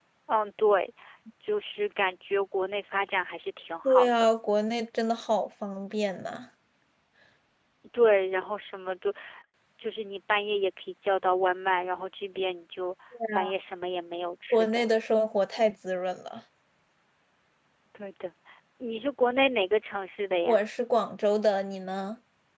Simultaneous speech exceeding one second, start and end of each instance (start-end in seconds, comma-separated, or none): none